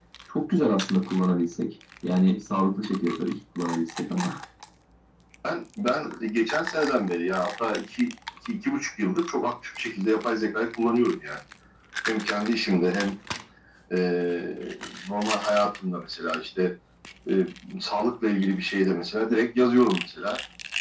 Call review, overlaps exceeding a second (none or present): none